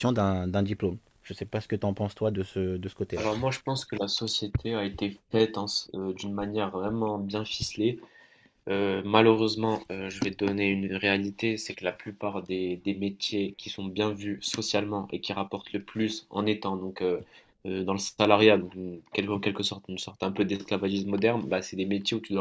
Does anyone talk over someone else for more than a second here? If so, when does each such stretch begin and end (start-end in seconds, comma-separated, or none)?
none